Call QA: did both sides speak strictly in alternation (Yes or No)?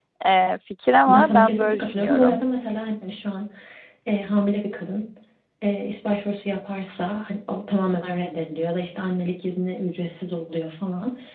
No